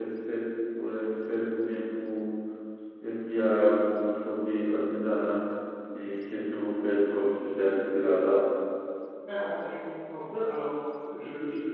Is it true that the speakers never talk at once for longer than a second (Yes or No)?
Yes